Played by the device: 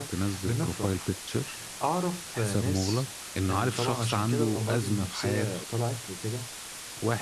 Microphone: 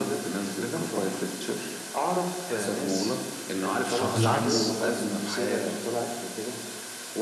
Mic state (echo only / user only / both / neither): both